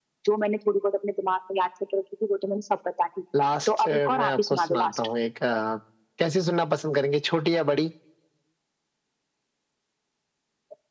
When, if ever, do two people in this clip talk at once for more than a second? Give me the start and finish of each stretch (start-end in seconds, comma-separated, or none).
3.7-5.1